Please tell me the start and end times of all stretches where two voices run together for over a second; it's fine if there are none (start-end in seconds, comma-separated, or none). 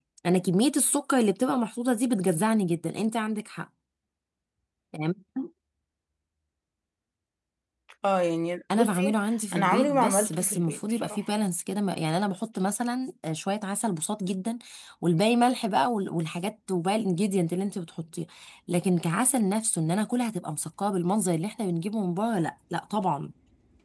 9.5-11.2